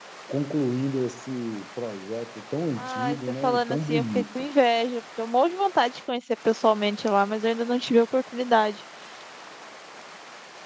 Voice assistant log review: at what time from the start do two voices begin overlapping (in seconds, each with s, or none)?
2.8 s